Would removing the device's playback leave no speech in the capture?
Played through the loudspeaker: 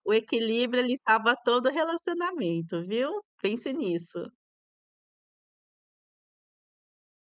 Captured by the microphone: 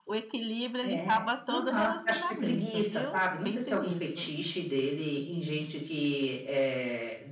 No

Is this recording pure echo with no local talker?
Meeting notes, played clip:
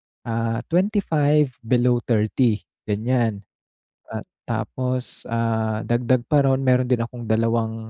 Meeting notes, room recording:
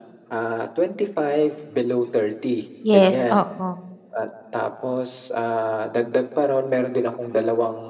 No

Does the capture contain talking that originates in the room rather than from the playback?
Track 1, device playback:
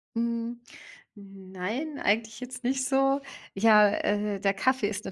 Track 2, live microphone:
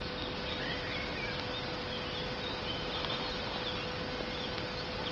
No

